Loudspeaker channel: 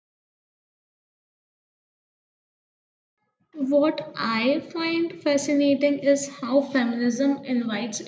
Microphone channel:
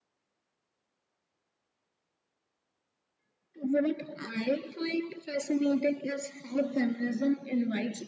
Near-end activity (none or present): none